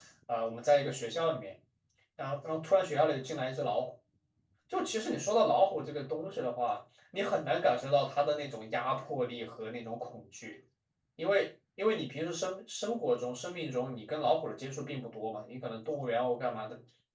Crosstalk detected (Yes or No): No